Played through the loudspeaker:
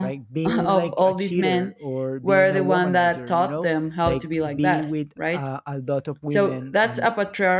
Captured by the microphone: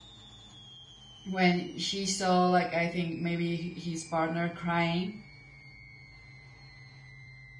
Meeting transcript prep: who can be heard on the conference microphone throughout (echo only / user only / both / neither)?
user only